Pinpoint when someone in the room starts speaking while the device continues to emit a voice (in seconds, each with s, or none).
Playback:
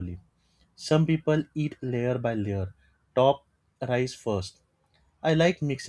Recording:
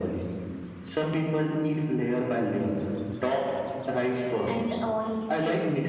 4.4 s